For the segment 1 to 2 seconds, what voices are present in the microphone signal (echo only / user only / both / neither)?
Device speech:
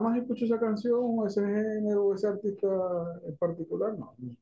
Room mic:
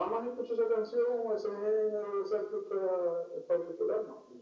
echo only